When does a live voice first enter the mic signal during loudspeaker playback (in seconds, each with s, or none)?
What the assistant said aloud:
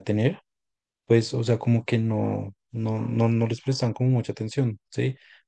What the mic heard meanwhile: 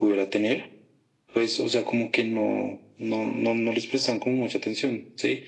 none